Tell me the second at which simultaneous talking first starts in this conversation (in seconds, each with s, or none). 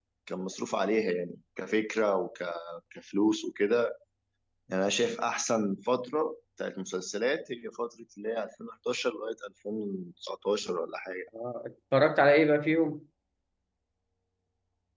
none